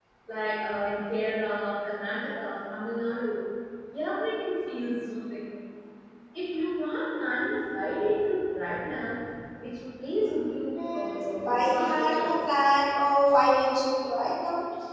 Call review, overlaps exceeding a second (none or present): present